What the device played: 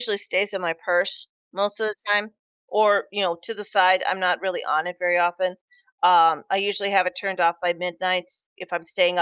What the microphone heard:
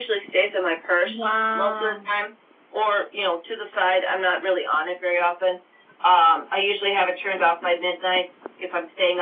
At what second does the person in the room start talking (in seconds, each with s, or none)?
1.0 s